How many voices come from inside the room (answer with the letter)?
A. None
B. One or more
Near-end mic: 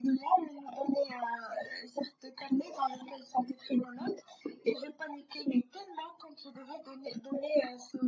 A